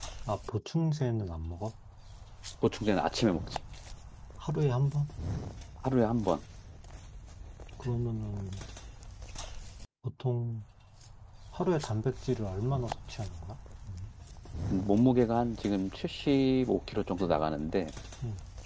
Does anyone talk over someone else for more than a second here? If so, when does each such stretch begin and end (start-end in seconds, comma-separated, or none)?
none